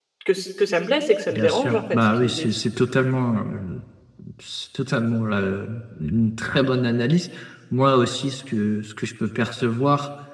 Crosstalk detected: Yes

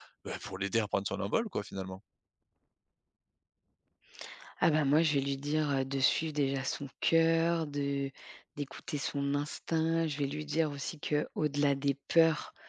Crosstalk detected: No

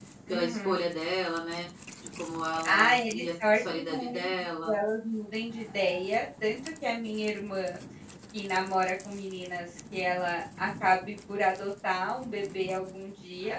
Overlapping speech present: Yes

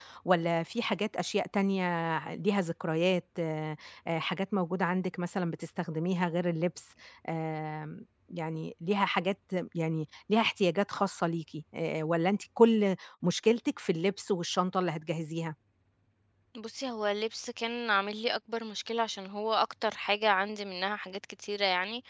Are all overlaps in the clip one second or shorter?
Yes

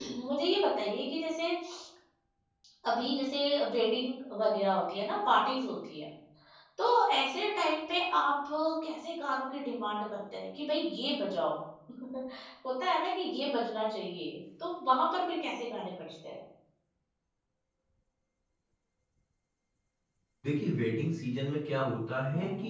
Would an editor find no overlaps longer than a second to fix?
Yes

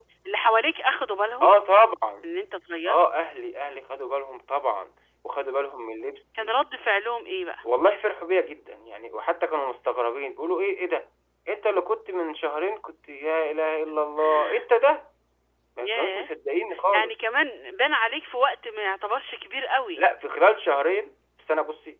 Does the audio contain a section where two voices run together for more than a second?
No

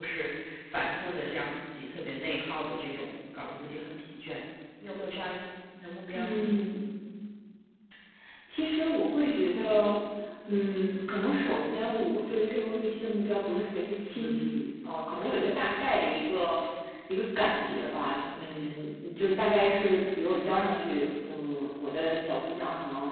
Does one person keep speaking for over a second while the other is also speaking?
No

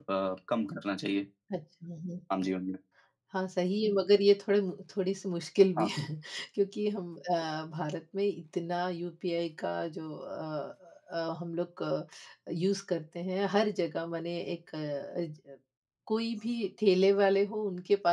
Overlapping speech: No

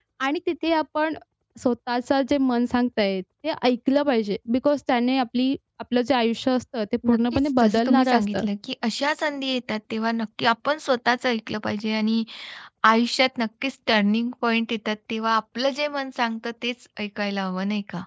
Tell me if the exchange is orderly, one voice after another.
No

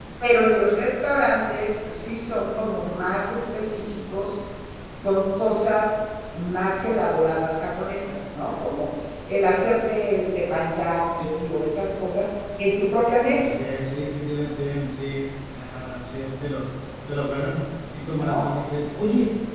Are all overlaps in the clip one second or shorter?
Yes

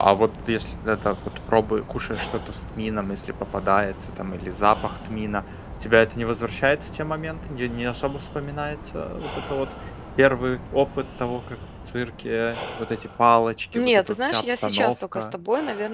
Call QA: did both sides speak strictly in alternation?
No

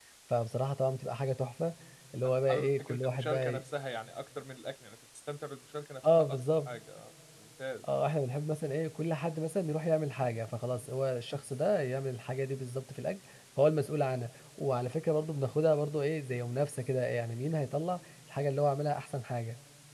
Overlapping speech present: Yes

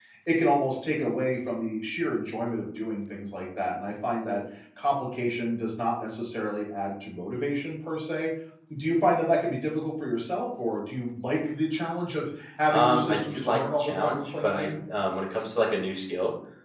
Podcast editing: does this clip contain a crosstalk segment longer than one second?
Yes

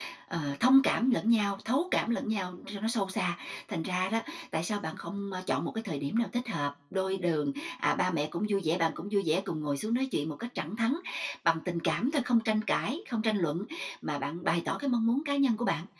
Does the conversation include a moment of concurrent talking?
No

